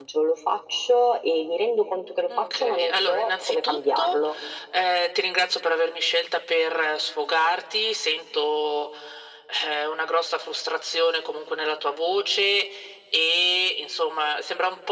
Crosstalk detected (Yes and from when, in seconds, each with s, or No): Yes, from 2.3 s